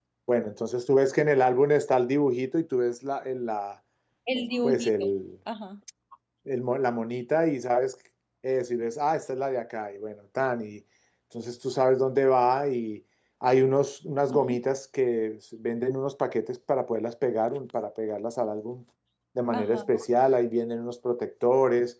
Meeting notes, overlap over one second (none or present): none